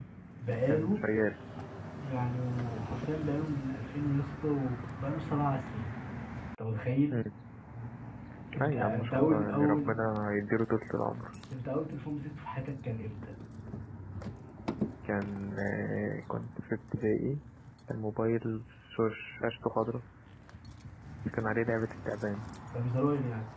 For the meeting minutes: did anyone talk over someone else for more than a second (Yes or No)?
Yes